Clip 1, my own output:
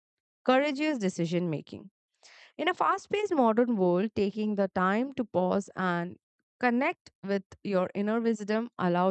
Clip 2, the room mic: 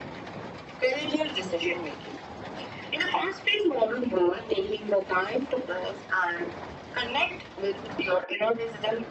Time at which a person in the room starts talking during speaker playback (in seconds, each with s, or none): none